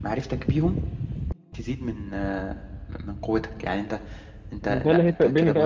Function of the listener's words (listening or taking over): taking over